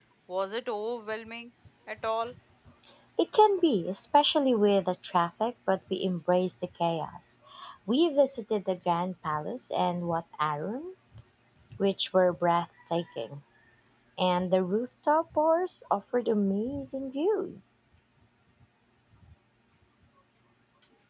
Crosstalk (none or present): none